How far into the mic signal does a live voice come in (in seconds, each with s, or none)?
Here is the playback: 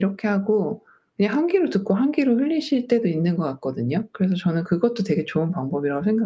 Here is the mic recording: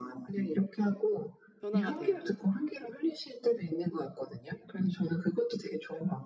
1.6 s